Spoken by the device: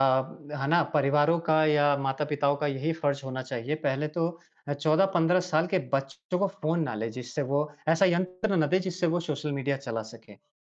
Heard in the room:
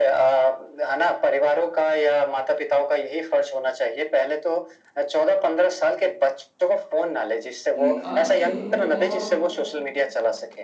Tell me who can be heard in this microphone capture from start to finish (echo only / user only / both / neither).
both